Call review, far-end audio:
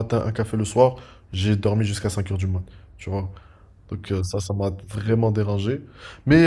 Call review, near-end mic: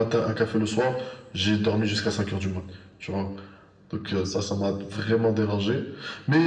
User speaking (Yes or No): No